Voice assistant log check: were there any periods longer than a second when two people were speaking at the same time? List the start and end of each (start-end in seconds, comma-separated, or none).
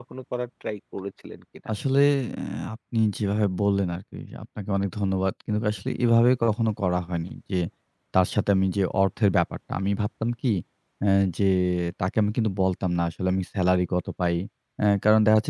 none